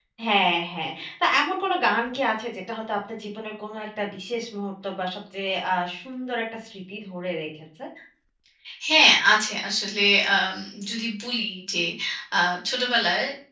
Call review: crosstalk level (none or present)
none